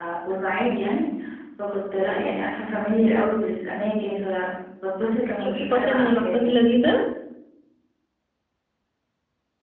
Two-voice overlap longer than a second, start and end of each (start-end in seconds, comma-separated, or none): 5.4-6.7